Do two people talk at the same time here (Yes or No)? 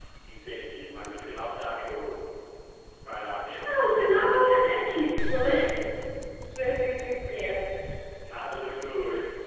No